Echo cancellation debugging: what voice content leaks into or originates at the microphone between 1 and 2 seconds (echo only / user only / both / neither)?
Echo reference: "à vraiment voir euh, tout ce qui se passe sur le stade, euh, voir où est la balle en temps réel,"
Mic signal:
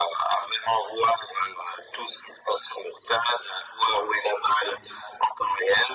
echo only